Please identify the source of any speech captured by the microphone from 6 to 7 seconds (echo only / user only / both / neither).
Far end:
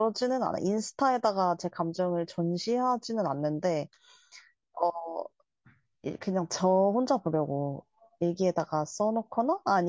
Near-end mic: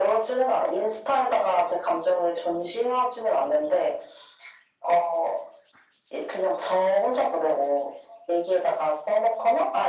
echo only